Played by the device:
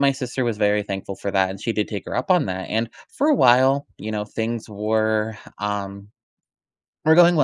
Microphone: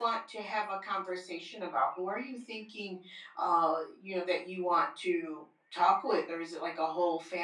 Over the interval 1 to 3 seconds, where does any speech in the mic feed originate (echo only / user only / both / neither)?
user only